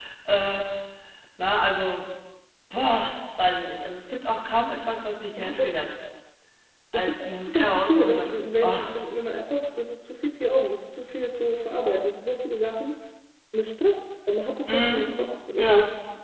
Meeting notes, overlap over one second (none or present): present